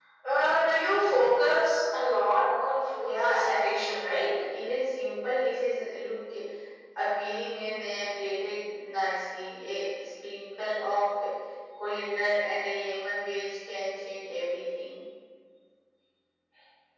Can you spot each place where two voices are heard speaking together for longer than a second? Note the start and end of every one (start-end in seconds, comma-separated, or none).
3.0-4.3